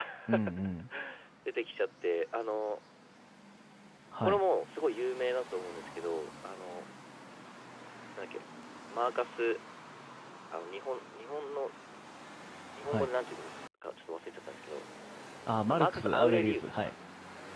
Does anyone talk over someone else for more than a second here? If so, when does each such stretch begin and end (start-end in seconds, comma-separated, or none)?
15.7-16.9